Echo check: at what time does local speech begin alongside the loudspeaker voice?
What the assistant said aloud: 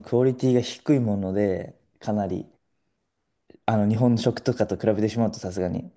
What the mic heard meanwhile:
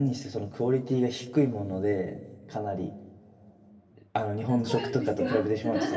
4 s

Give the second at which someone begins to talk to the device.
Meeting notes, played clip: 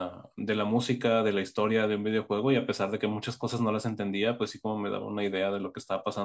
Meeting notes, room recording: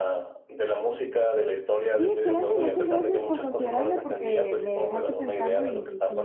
2 s

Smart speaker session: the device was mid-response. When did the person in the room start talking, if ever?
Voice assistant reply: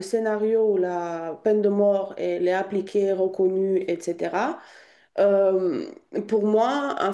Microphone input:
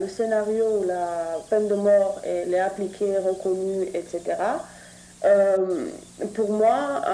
none

